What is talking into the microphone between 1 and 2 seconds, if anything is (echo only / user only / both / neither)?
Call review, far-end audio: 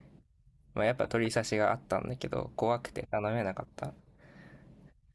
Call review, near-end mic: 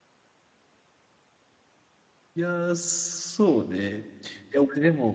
neither